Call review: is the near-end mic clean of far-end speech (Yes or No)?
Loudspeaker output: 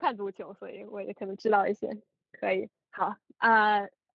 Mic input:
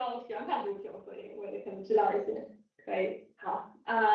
No